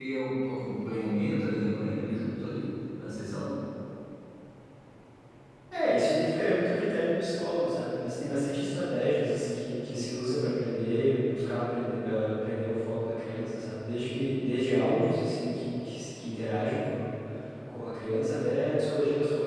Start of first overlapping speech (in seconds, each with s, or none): none